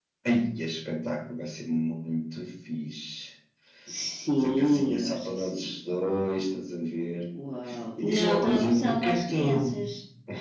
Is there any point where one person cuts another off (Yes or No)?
Yes